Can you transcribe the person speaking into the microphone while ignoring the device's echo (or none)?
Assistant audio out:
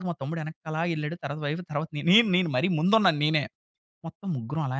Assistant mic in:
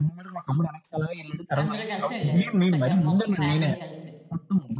అందరూ కలిసి ఎళ్లారు. చక్కగా మొత్తం ఫ్యామిలీ కలిసి.